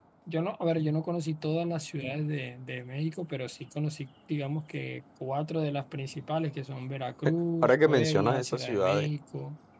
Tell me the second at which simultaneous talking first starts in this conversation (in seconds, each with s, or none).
7.6 s